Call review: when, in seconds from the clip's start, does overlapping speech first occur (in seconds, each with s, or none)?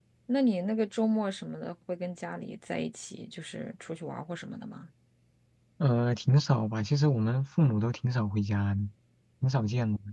none